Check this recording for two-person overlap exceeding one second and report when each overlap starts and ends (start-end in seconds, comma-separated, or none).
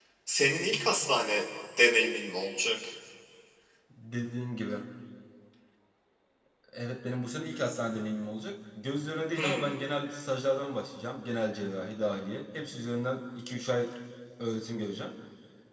none